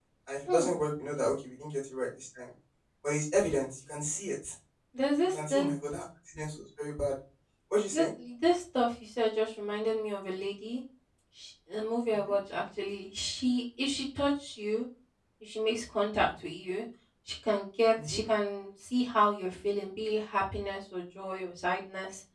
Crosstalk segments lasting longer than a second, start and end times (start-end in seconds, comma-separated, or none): none